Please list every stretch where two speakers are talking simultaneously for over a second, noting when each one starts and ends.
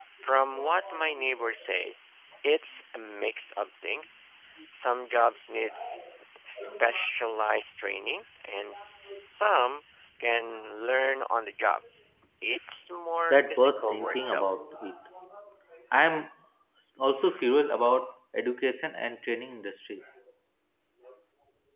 13.3-14.5

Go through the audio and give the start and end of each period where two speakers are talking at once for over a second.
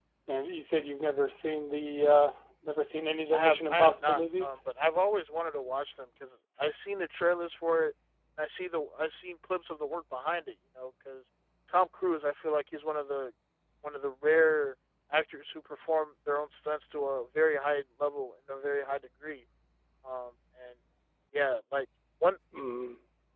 3.3-4.5

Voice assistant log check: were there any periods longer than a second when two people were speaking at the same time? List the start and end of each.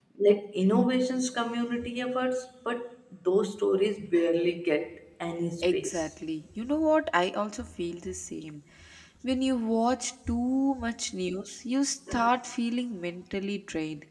none

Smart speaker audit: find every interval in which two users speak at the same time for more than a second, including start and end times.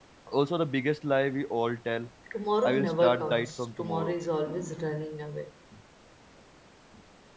2.6-4.1

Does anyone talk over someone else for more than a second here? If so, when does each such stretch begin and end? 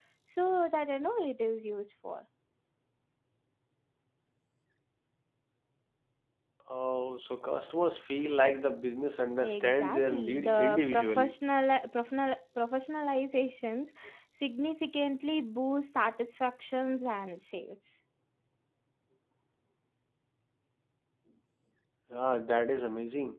9.6-11.3

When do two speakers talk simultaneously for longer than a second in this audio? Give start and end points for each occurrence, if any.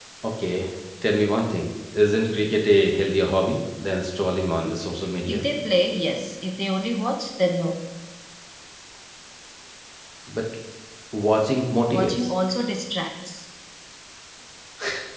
none

